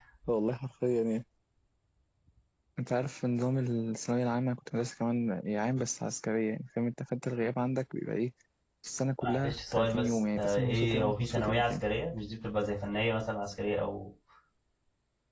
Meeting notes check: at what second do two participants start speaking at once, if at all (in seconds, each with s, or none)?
9.2 s